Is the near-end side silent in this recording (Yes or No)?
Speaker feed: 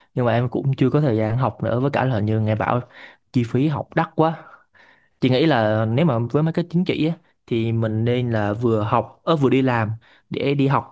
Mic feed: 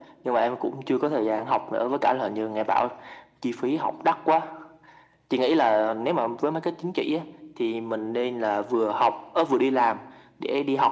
Yes